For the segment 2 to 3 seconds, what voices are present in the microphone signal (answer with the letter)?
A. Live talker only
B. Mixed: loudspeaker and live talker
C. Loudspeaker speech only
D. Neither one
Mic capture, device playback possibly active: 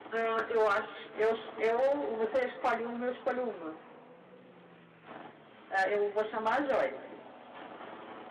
C